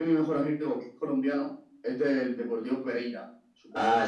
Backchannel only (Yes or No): No